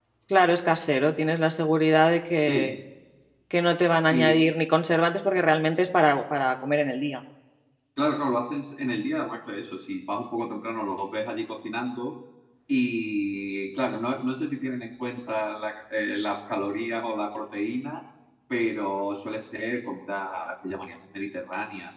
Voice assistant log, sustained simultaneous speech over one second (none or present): none